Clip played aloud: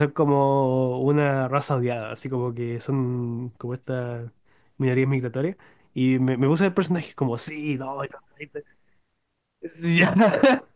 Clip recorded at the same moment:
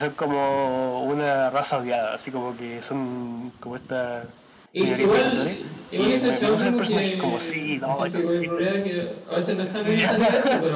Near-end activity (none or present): present